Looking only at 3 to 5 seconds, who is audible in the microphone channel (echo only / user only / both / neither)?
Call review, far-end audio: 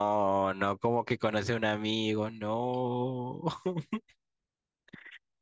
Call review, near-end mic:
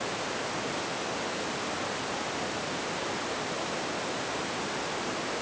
neither